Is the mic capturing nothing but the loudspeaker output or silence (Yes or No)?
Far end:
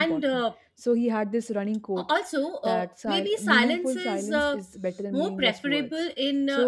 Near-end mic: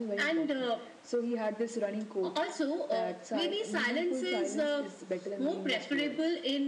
Yes